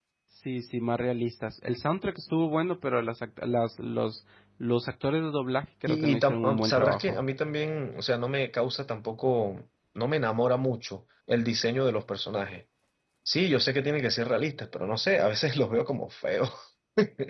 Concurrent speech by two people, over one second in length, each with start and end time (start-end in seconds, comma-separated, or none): 5.9-7.2